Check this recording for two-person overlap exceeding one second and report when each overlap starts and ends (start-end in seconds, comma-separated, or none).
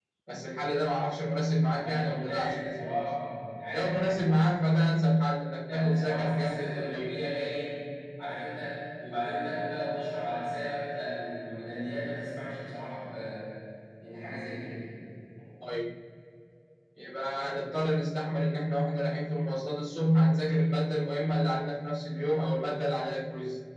1.7-3.0, 5.7-7.2